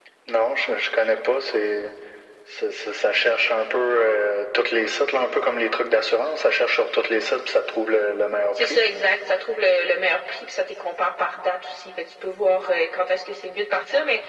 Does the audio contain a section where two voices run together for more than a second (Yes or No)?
No